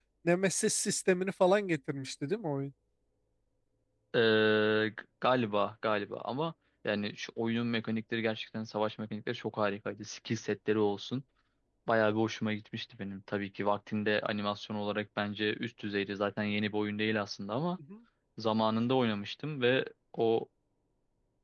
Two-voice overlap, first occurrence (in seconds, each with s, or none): none